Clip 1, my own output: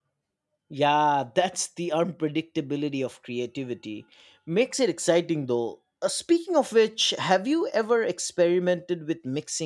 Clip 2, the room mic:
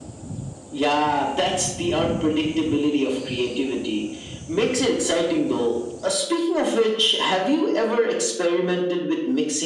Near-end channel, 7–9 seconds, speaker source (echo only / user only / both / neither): echo only